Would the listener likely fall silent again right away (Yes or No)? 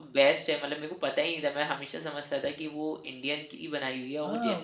No